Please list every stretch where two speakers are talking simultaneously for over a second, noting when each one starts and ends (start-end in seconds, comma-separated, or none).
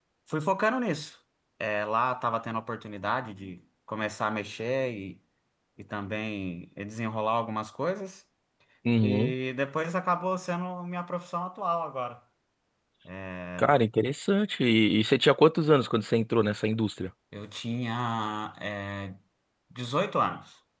none